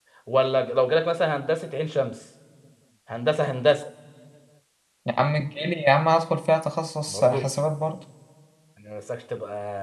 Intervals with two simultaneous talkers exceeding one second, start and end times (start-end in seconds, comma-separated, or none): none